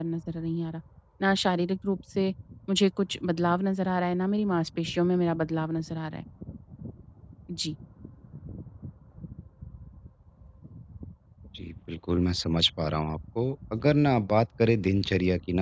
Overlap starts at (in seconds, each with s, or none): none